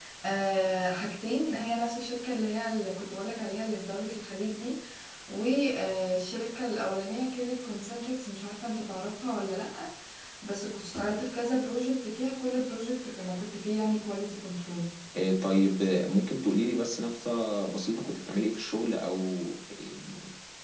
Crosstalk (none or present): none